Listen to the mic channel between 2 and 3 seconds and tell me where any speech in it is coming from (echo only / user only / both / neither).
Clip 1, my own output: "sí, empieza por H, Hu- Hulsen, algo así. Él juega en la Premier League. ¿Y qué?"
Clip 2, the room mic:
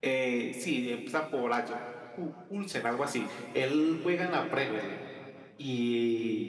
echo only